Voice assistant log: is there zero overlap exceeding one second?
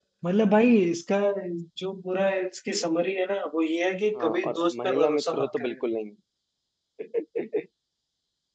No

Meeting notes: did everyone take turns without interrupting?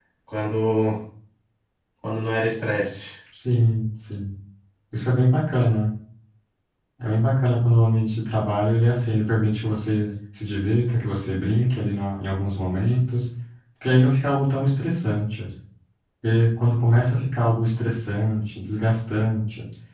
Yes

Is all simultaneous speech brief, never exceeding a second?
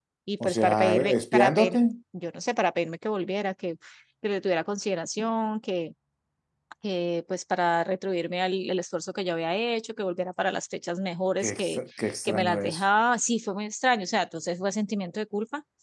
No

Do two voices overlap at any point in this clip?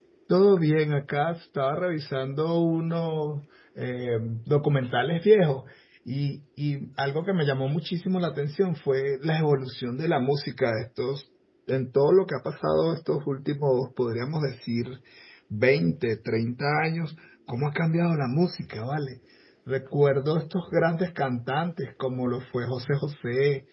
No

